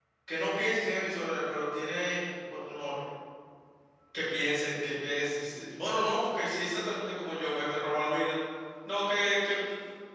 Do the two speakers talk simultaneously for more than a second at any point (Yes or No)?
No